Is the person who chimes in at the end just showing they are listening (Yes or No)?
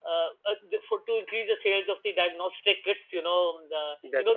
Yes